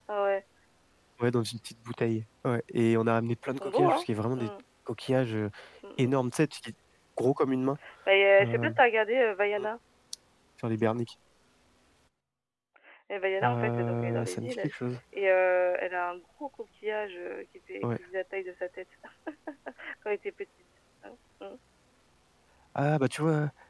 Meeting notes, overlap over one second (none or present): present